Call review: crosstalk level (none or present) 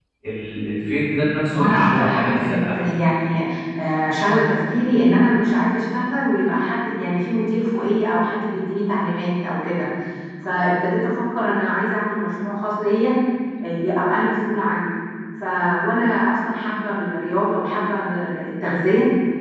present